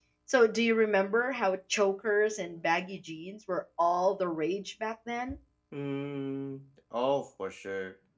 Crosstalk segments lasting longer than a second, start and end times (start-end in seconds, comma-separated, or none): none